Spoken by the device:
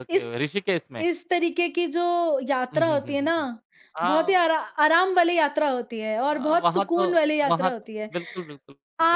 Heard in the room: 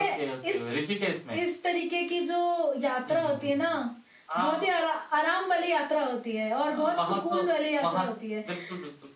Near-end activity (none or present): none